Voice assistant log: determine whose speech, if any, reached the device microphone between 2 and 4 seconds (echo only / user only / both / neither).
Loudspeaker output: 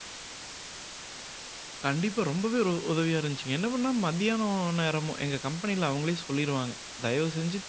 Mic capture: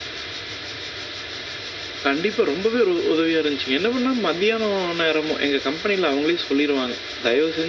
echo only